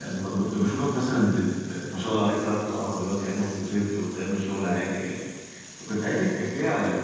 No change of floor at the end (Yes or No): Yes